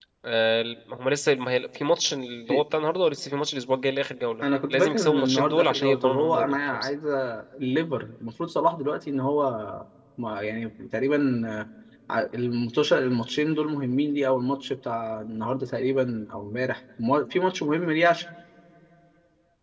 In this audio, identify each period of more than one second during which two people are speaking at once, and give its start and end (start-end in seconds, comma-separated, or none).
4.4-6.9